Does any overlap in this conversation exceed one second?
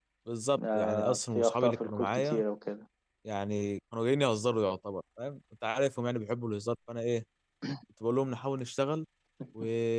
Yes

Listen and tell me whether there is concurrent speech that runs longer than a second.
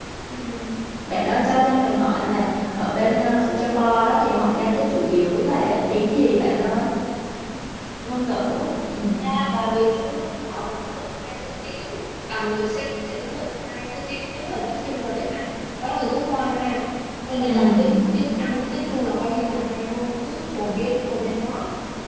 No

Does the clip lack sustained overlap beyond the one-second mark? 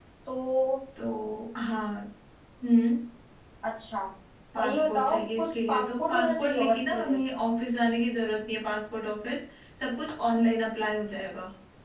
No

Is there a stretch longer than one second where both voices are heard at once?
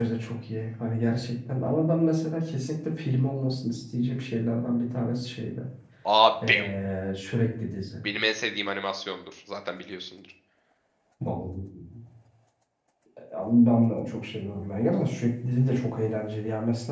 No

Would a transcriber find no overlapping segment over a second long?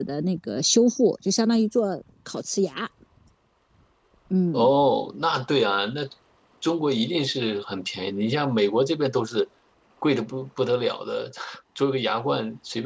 Yes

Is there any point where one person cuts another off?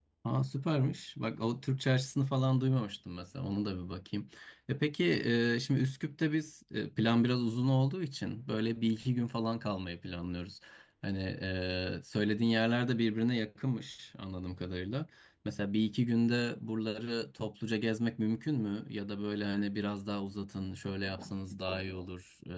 No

